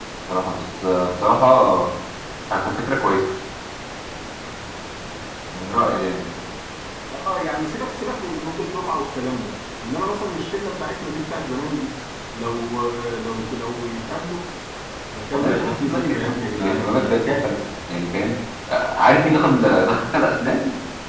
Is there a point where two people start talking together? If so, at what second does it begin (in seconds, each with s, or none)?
15.3 s